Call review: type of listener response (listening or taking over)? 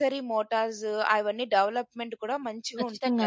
taking over